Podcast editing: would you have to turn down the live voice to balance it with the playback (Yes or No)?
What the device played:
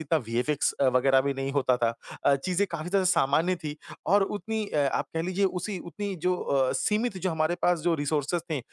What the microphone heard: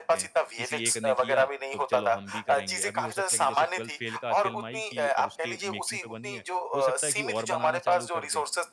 No